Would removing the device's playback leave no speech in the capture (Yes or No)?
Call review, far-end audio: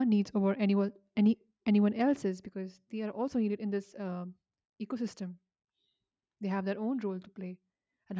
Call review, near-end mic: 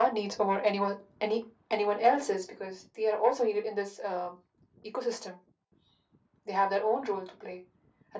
Yes